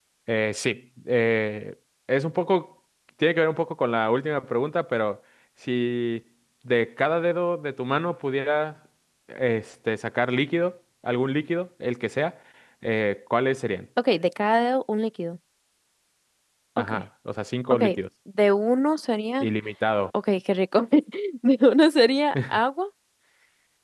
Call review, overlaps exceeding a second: none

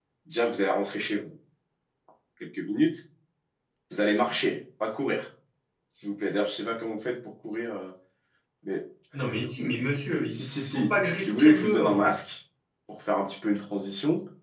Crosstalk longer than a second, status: present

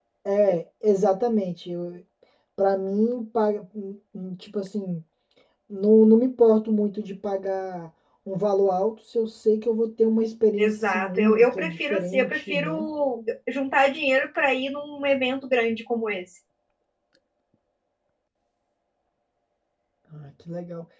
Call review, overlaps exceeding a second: present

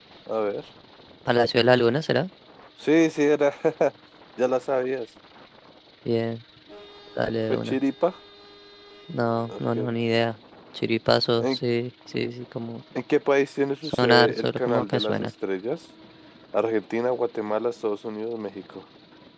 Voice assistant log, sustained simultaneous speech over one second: present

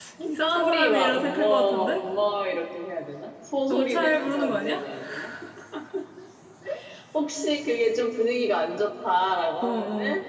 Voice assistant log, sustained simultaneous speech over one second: present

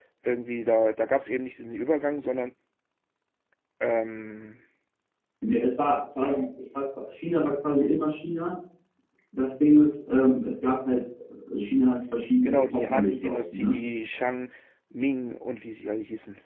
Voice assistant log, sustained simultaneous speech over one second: present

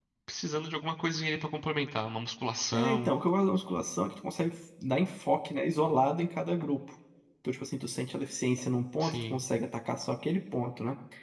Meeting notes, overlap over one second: none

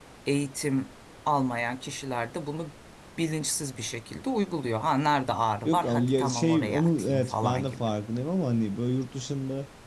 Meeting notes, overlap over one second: present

